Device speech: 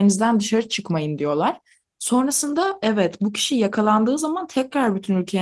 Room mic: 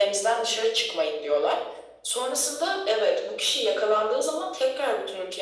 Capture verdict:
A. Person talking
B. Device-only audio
B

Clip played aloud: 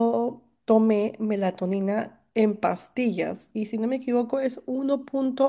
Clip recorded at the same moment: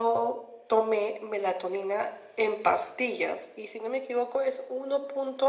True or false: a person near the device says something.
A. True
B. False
B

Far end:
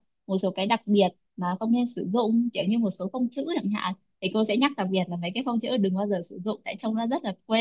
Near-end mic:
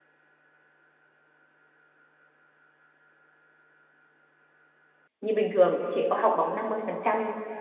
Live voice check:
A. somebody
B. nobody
A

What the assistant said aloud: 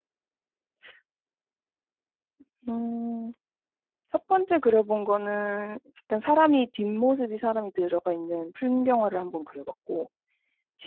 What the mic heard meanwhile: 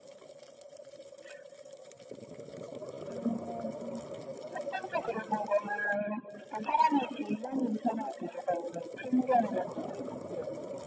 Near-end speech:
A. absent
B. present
A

